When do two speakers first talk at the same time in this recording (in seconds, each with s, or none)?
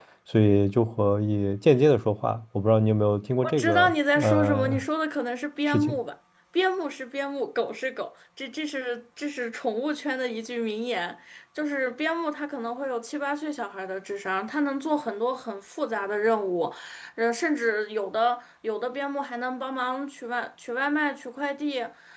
3.4 s